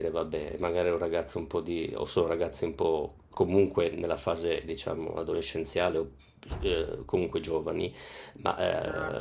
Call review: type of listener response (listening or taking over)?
listening